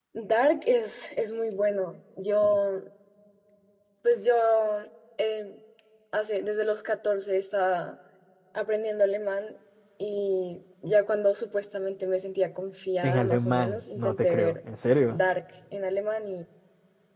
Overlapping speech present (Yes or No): Yes